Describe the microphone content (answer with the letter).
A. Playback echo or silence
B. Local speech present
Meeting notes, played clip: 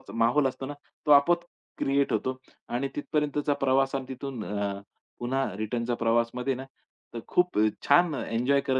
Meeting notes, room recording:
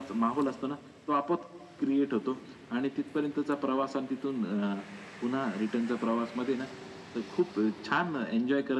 A